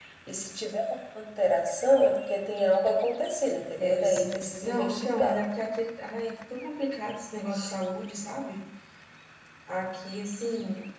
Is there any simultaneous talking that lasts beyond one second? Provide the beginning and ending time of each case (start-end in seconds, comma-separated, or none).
3.8-5.4